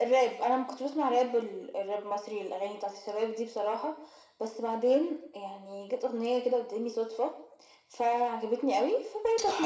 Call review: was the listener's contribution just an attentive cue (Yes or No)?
No